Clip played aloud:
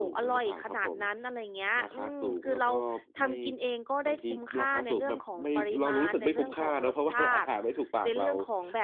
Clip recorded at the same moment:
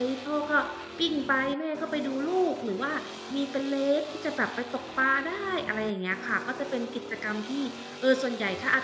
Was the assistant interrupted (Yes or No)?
Yes